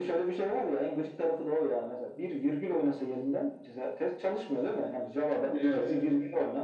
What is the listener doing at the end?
listening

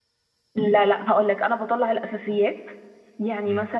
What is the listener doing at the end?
listening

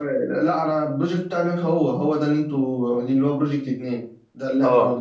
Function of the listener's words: taking over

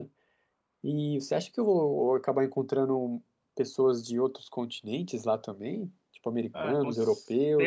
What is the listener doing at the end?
taking over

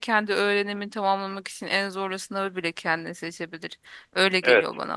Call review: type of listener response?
taking over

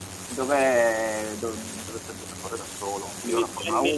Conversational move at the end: listening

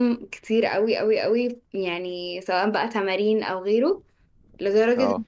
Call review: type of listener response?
listening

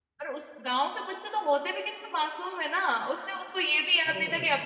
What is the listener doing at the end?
listening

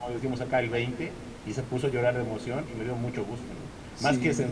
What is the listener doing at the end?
listening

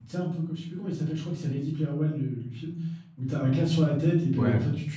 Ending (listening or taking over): listening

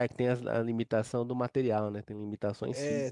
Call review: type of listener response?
taking over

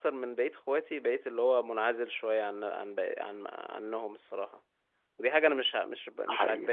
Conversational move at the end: listening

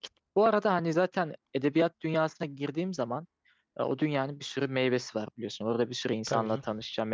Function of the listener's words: listening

